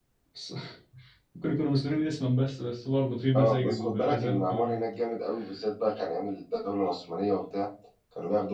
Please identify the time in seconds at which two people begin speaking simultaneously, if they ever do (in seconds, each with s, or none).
3.3 s